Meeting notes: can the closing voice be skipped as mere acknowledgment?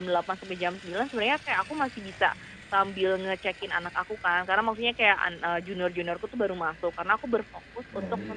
Yes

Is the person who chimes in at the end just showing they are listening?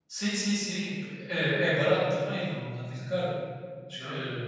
Yes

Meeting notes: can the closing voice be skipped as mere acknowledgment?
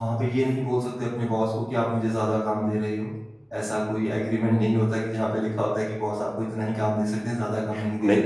No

